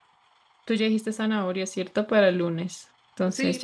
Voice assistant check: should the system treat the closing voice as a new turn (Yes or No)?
Yes